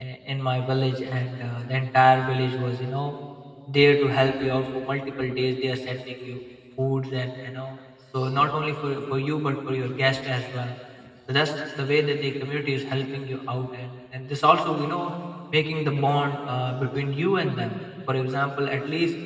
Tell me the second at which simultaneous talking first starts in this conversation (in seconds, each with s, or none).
none